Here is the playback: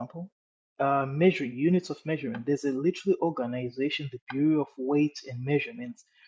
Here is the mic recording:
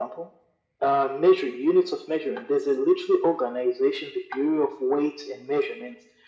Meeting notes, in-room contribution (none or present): none